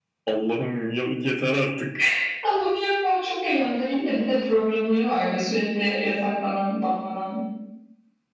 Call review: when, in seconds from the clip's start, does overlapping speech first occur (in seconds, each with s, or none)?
none